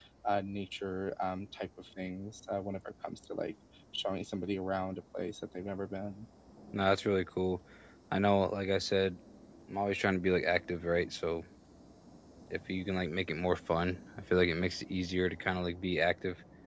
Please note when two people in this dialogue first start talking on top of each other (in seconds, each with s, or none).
none